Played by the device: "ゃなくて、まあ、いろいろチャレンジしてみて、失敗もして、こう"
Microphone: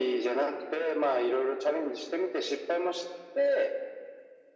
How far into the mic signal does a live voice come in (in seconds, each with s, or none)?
none